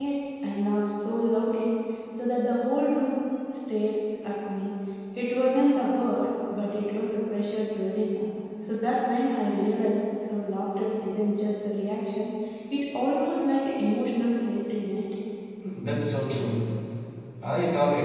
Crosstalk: none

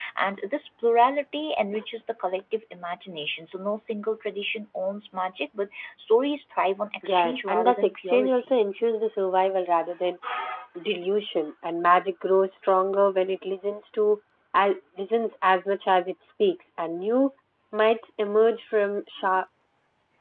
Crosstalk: present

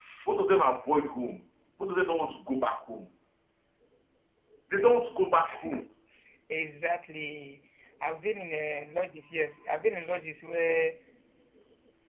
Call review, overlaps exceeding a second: none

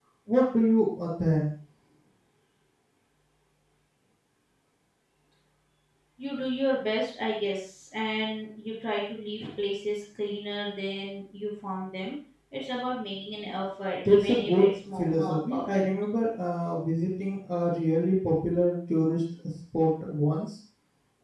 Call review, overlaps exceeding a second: present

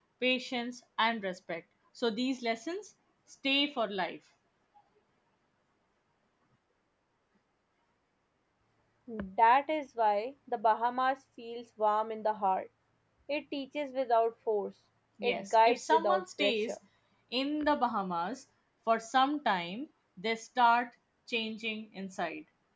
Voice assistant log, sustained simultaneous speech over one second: present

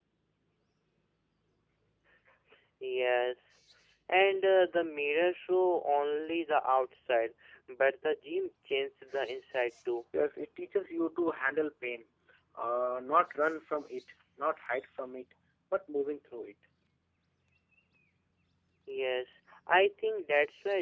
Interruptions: none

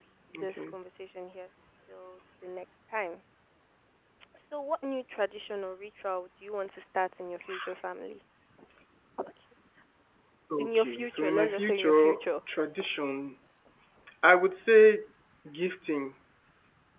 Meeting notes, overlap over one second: present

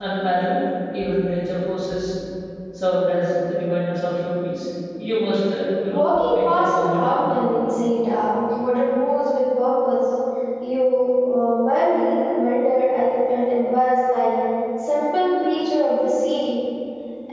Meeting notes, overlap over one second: present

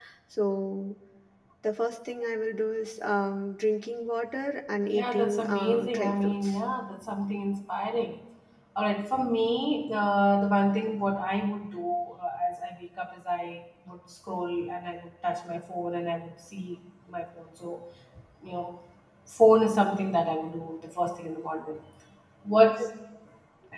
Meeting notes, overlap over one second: present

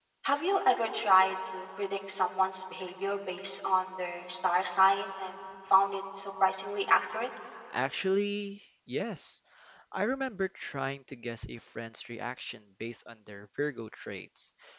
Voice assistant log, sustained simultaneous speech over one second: none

